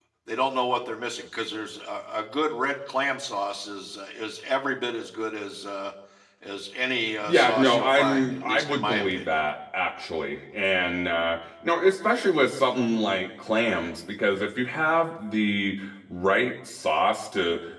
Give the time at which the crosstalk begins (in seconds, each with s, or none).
7.3 s